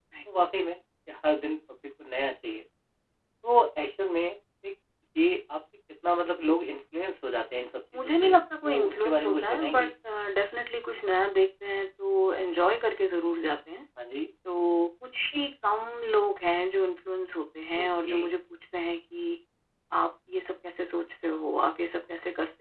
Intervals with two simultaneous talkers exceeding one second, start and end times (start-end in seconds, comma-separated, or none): 7.9-9.9